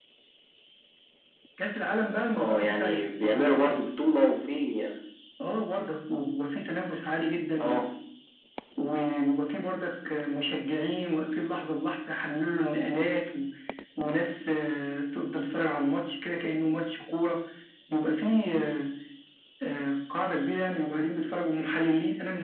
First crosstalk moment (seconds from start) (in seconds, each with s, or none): 2.4 s